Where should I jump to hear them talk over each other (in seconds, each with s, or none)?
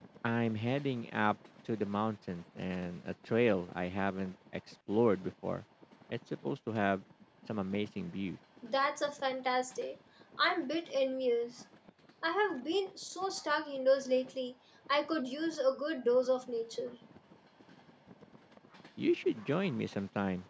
none